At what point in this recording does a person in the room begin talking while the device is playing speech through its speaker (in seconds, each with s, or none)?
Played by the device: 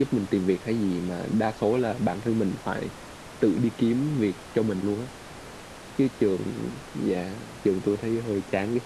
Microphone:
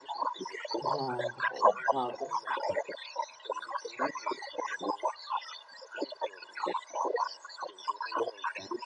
0.8 s